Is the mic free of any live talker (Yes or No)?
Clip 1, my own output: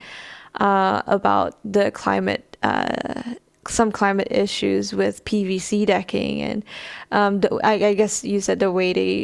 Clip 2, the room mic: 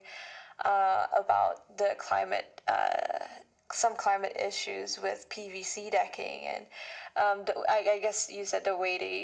Yes